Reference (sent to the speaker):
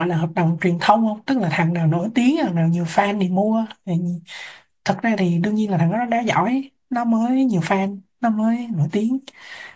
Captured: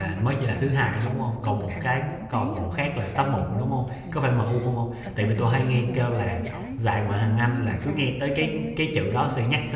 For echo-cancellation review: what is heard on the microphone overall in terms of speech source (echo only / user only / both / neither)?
both